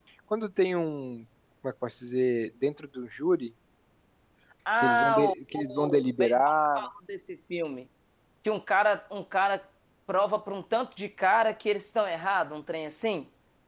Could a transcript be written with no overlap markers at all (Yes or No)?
No